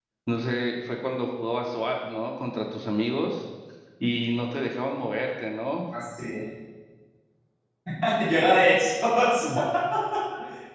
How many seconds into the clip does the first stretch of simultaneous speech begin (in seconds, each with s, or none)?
none